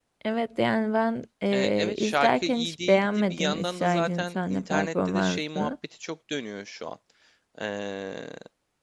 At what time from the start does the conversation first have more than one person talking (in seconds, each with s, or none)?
1.5 s